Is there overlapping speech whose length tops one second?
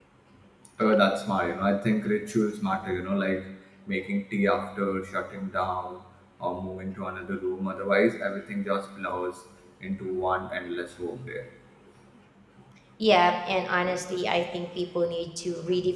No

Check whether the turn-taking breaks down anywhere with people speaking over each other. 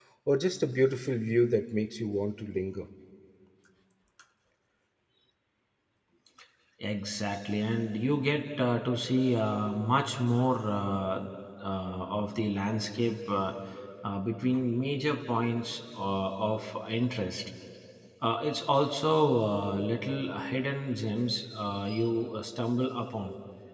No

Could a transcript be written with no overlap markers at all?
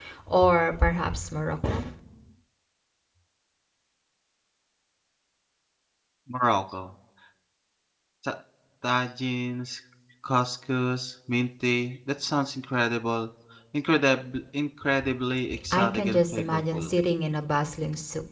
No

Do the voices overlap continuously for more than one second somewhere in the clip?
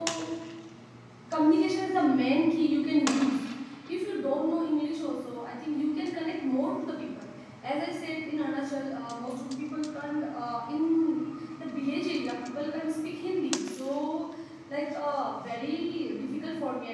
No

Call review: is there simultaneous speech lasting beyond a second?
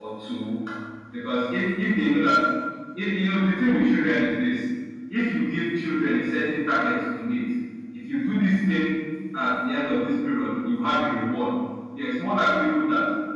No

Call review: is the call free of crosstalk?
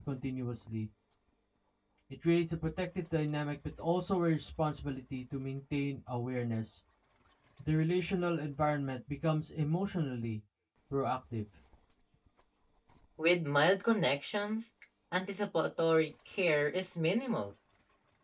Yes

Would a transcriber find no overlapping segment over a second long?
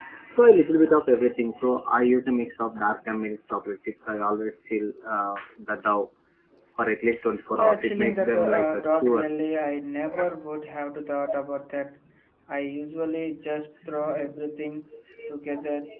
No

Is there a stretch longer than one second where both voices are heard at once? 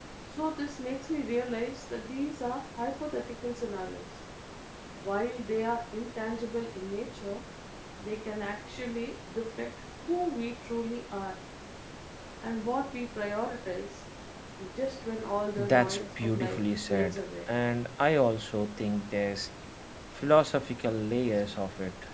Yes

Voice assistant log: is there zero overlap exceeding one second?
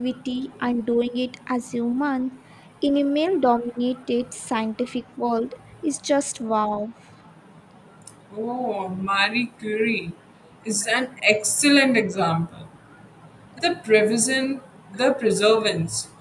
Yes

